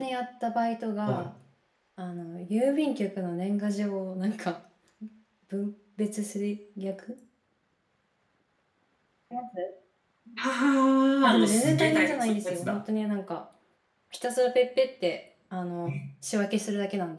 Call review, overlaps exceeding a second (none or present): present